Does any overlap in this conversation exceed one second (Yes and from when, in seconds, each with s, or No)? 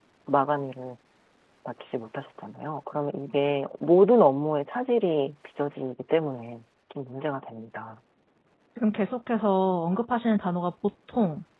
No